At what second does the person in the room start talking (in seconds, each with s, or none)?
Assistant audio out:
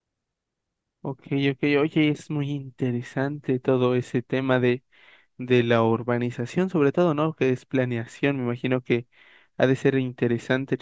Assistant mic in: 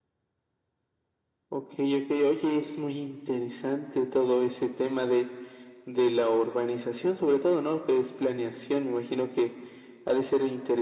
none